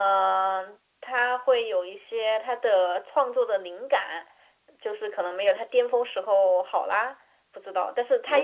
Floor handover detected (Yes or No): Yes